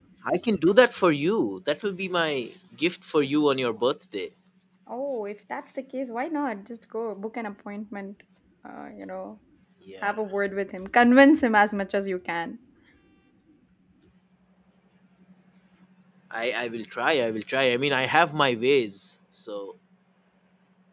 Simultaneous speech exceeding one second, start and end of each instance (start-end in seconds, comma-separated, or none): none